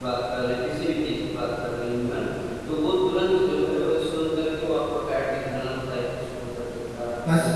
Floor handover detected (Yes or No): Yes